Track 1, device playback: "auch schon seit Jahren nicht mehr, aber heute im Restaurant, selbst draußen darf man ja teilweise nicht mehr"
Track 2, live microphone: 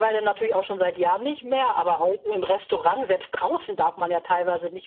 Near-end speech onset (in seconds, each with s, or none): none